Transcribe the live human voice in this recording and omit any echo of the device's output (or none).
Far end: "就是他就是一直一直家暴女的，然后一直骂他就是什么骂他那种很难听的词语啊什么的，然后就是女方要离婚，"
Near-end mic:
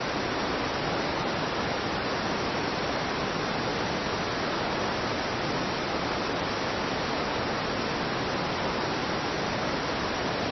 none